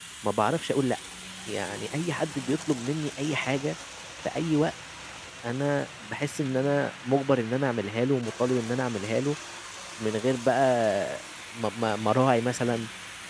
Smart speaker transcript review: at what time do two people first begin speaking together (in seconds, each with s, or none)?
none